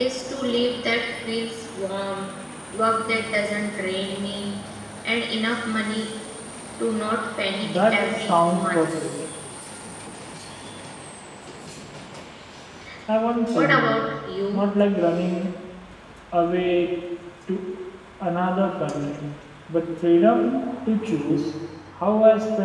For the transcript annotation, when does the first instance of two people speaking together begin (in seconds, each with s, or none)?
7.6 s